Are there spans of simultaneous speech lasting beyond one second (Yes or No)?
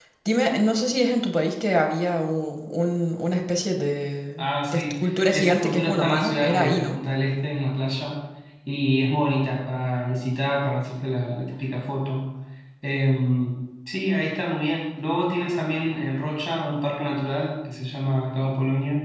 Yes